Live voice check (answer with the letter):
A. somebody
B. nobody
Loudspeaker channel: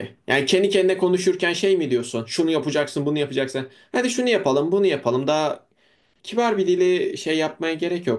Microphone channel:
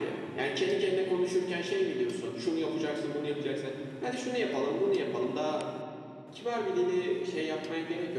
B